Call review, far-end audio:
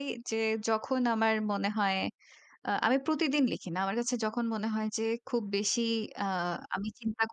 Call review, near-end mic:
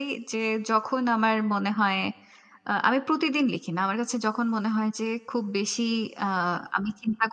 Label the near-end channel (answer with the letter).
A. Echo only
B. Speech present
A